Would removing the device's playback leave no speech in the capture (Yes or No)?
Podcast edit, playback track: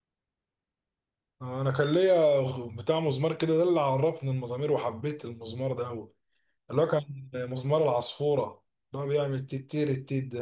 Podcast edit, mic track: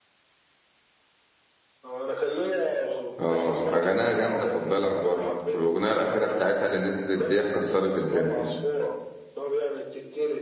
No